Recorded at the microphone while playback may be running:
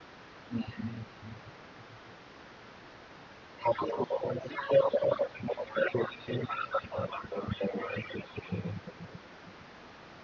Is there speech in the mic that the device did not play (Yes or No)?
No